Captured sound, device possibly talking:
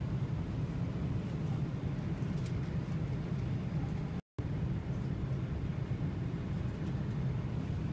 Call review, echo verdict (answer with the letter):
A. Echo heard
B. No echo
B